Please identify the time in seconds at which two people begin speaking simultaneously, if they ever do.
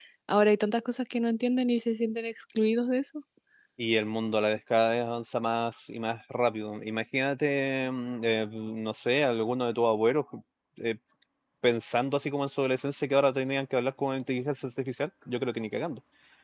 none

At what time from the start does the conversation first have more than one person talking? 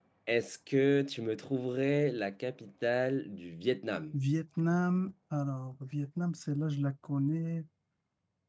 none

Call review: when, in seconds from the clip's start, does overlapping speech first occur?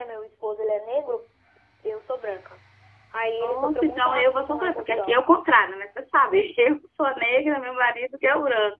3.4 s

